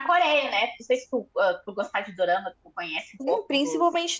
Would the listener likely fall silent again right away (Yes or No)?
No